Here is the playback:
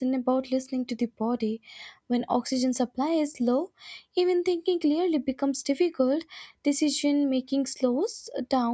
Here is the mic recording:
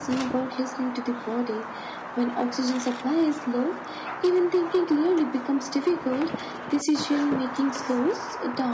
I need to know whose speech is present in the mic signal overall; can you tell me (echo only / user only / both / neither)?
echo only